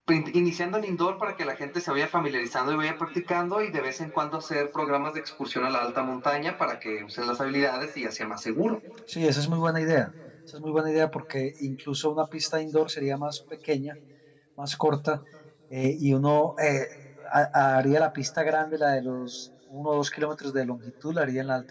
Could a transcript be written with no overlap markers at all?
Yes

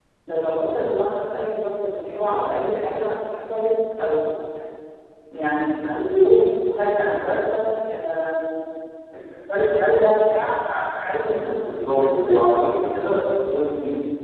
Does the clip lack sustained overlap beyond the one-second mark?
No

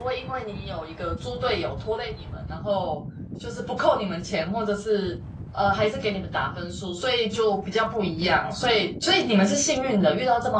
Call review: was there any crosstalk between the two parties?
No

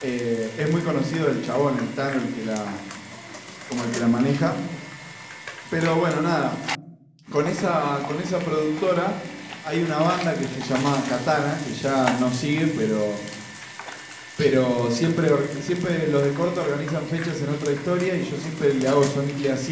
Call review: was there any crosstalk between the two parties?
No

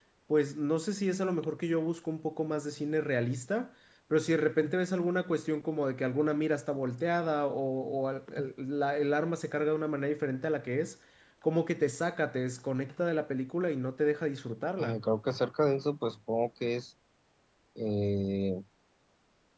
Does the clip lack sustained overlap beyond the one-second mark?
Yes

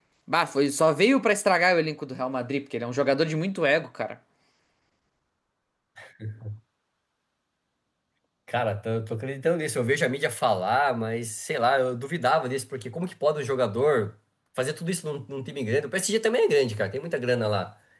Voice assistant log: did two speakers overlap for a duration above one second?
No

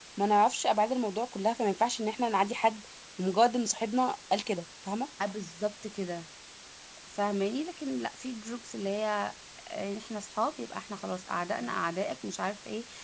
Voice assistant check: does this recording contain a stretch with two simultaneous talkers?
No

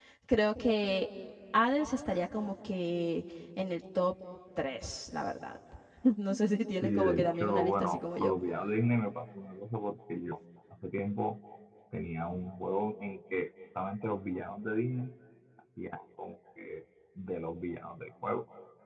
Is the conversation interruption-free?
No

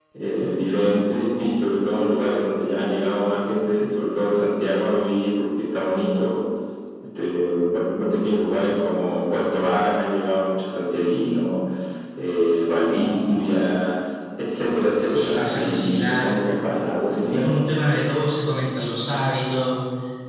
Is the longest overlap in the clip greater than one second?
Yes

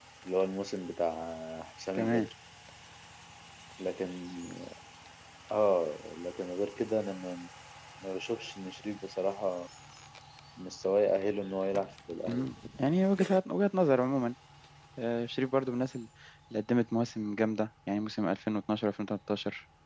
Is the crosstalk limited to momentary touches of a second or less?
Yes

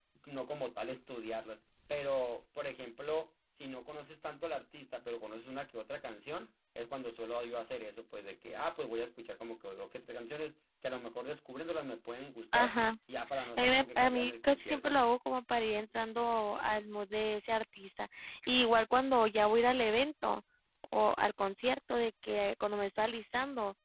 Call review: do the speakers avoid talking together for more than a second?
No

